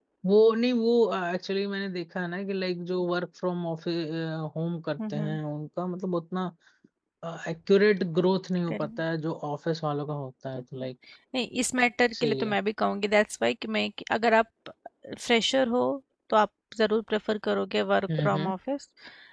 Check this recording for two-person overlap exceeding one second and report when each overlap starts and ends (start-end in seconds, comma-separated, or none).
none